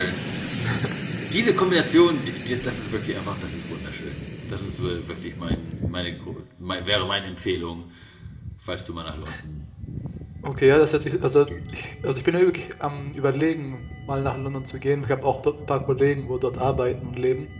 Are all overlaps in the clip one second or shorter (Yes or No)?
Yes